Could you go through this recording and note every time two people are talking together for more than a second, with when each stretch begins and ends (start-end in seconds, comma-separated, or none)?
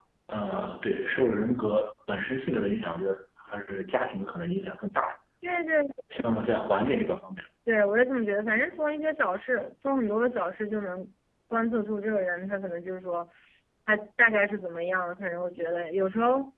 none